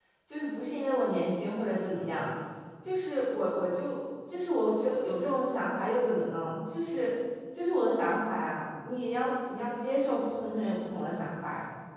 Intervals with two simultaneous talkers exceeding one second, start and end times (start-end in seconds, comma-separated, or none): none